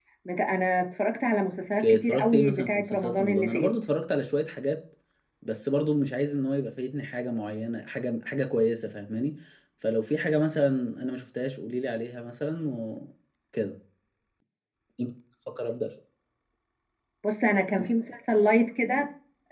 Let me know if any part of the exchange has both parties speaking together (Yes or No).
Yes